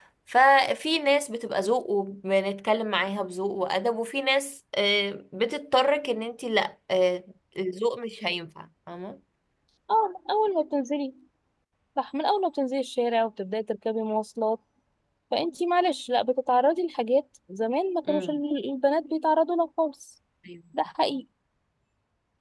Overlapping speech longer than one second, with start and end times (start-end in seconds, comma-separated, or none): none